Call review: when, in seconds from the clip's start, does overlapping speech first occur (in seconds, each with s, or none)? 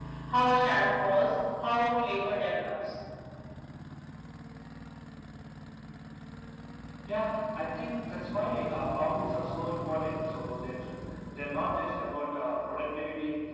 none